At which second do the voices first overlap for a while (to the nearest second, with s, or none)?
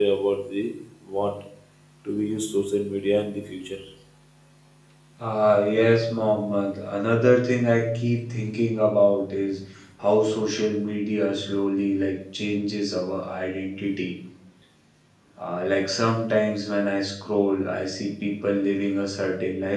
none